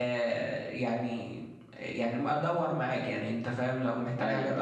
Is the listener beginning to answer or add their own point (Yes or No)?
No